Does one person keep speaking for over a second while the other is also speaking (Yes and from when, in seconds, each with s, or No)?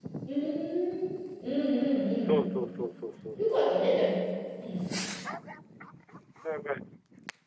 No